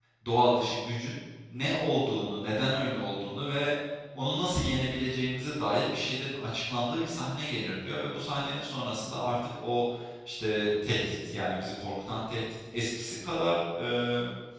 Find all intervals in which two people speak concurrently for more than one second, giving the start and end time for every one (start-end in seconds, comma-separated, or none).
none